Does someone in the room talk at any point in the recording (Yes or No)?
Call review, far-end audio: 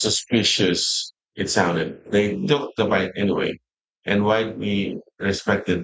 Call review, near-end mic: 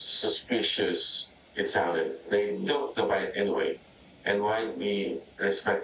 No